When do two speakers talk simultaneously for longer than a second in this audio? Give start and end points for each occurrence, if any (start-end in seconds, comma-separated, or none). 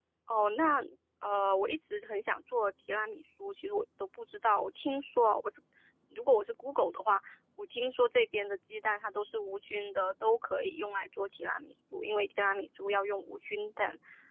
none